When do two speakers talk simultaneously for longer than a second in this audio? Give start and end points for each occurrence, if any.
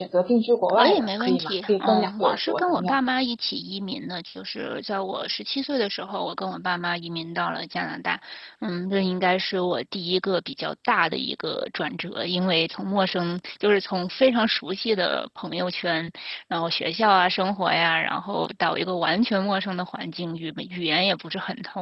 0.7-3.0

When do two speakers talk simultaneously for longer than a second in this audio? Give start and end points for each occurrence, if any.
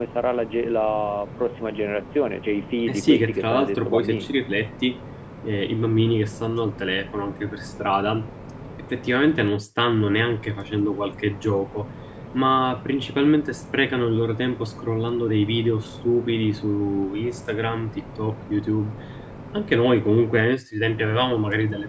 2.9-4.3

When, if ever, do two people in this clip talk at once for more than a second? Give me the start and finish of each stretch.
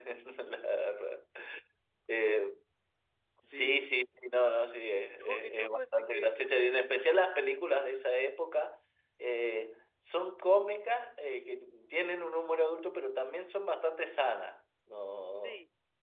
5.2-6.8

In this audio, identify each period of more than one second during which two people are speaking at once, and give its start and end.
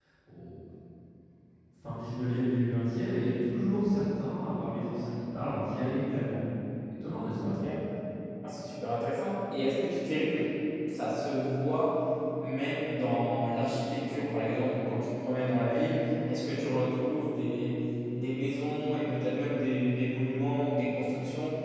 none

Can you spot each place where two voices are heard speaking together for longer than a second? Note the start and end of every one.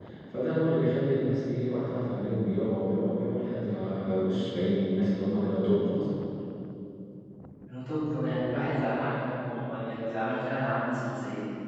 none

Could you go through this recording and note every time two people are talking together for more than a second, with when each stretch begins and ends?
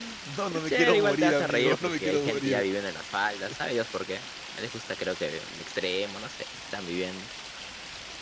0.5-2.6

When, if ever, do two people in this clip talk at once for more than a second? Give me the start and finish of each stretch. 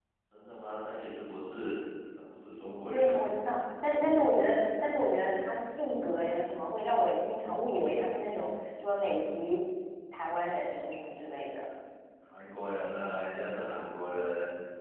none

